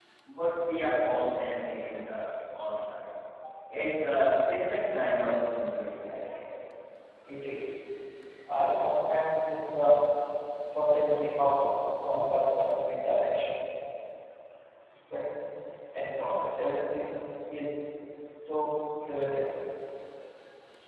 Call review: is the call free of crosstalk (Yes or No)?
Yes